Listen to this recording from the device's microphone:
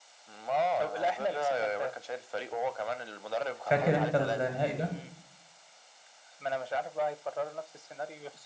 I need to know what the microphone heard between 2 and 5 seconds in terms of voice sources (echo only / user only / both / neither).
both